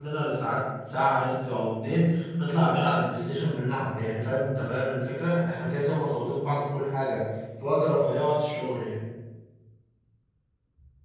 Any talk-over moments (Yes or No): No